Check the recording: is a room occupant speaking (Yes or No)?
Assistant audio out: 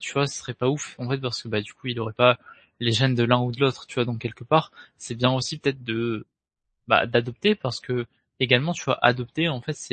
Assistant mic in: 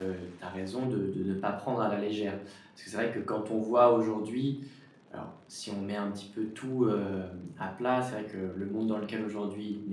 Yes